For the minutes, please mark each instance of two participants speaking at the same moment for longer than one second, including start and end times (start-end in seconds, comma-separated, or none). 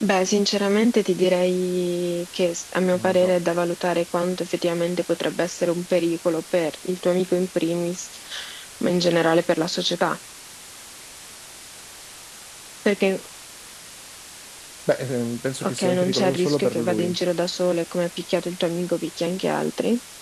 15.6-17.1